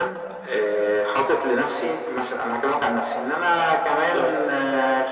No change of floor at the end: Yes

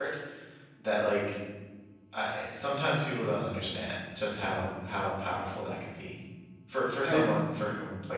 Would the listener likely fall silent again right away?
Yes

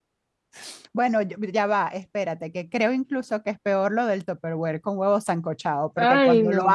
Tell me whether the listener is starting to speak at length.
No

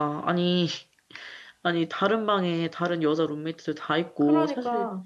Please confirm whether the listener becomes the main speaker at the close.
No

